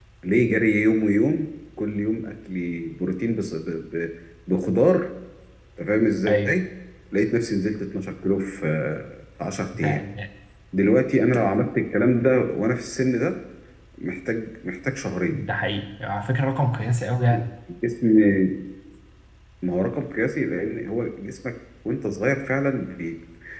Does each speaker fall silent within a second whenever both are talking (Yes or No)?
Yes